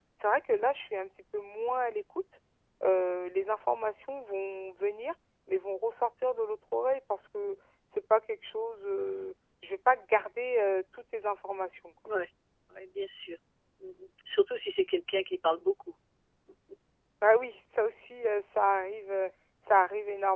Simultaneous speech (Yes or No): No